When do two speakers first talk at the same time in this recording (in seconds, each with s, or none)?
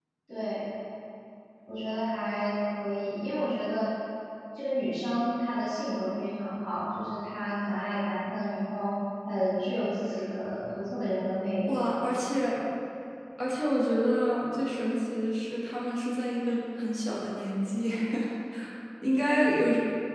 none